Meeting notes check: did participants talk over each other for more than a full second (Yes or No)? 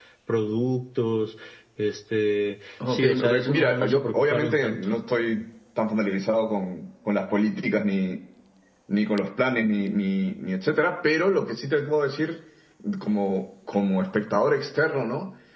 Yes